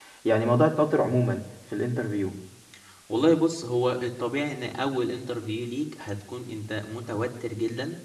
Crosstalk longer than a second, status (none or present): none